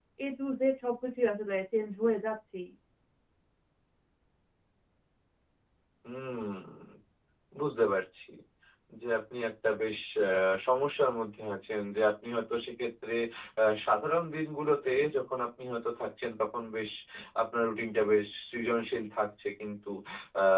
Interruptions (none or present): none